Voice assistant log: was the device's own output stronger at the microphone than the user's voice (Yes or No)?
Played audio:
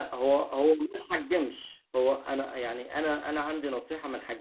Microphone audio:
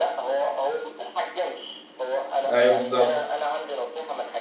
No